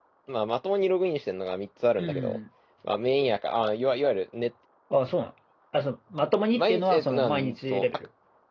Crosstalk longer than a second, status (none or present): present